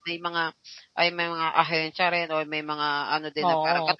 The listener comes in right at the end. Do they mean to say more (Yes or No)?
No